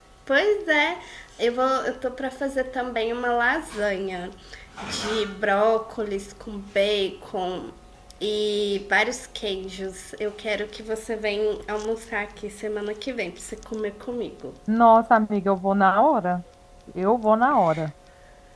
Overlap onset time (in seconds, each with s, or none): none